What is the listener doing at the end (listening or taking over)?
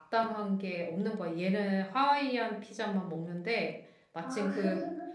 listening